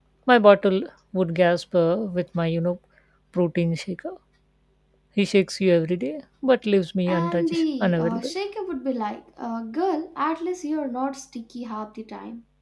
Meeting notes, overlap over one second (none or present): present